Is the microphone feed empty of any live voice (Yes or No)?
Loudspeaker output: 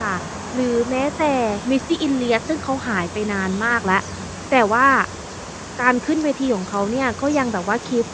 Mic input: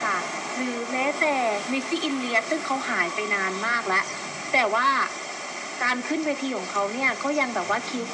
Yes